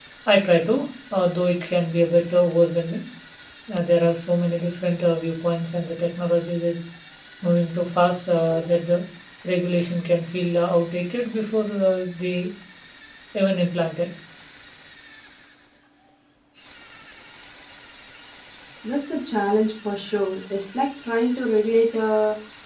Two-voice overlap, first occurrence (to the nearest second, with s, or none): none